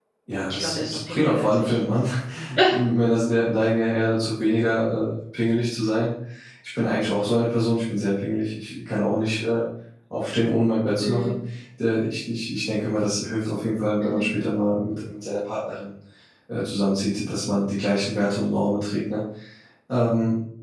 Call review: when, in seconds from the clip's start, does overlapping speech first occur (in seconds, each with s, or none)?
0.5 s